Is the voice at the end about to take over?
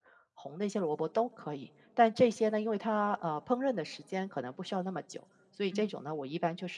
No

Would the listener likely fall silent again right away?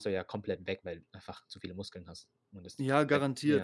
No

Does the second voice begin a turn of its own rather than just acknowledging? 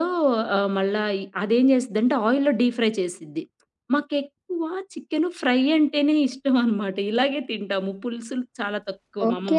Yes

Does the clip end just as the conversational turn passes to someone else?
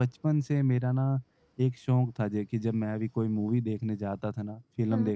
No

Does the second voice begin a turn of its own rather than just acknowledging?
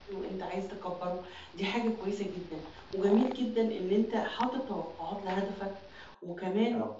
No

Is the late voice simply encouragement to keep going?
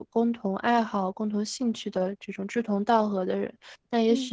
Yes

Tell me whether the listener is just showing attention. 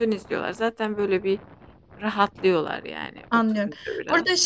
No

